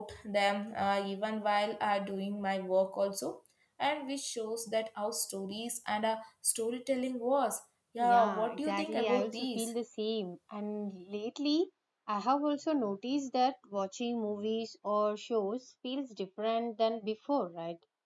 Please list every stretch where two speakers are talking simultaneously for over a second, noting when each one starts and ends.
8.0-9.7

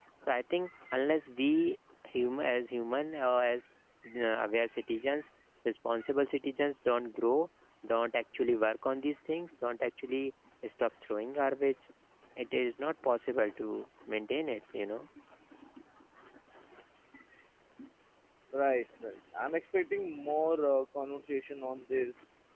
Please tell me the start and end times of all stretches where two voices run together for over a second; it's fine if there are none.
none

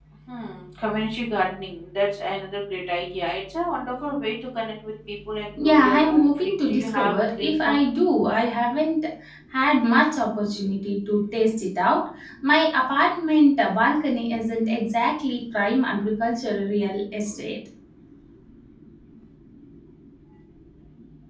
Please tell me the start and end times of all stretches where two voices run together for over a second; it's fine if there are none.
5.6-7.8

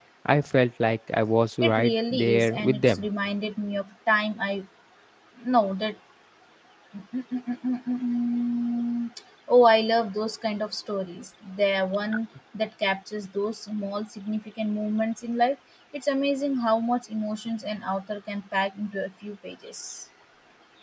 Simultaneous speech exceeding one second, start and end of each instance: 1.6-3.0

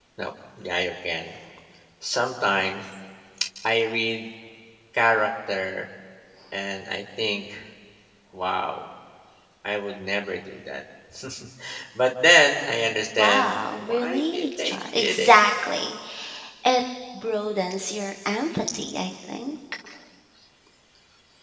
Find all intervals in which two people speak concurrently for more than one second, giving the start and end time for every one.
13.2-15.3

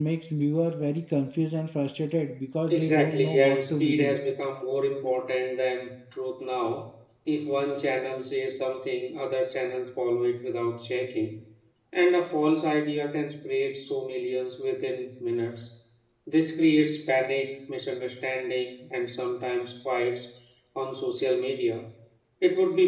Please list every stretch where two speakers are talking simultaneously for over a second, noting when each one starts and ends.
2.7-4.2

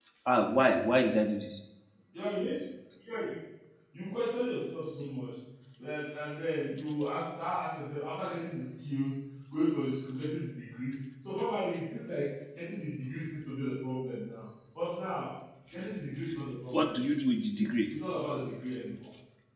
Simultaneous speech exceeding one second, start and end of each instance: none

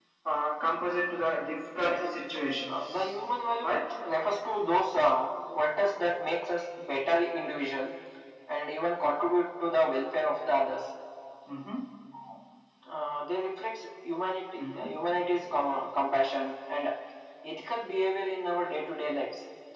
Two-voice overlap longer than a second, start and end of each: none

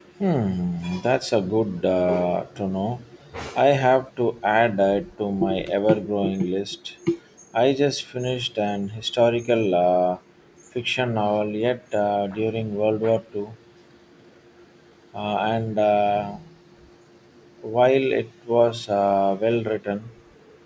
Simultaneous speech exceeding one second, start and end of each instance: none

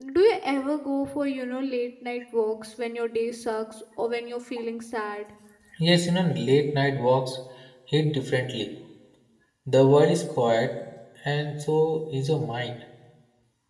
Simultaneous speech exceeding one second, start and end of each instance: none

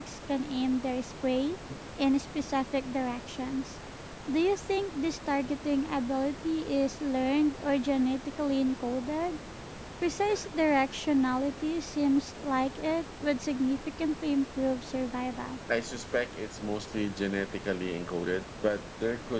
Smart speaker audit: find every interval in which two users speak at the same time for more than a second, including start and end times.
none

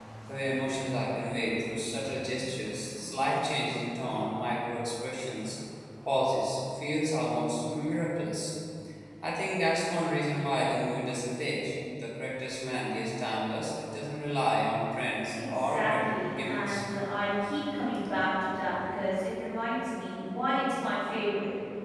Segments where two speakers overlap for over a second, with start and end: 15.3-16.8

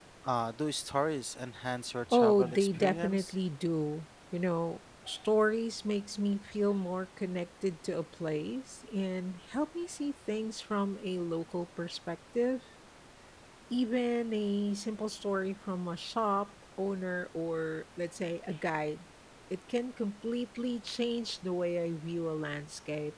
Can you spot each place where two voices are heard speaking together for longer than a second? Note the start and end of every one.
2.1-3.3

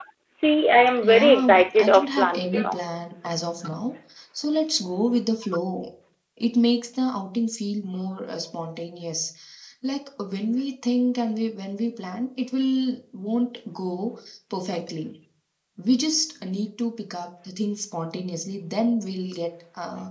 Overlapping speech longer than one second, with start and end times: 1.0-2.8

